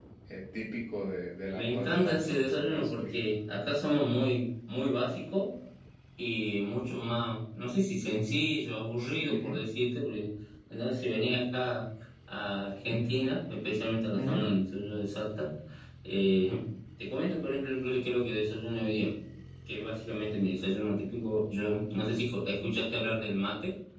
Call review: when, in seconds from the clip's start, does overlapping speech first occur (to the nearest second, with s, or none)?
2 s